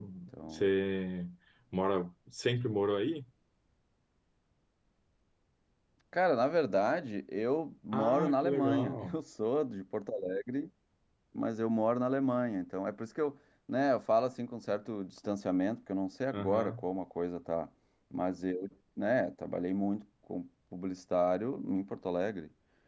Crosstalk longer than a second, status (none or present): present